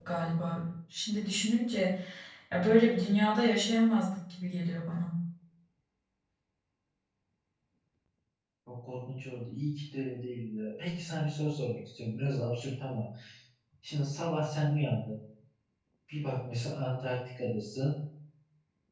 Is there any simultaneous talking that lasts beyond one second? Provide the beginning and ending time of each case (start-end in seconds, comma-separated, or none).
none